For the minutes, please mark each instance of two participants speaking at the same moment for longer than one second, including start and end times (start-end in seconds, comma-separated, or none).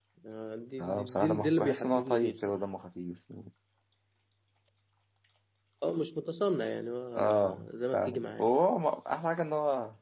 0.8-2.6, 7.2-8.5